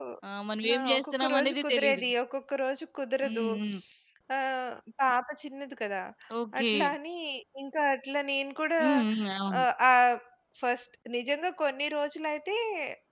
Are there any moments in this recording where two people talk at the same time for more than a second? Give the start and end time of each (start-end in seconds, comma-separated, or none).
0.7-2.0